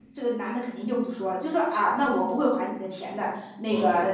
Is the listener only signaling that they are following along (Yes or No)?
Yes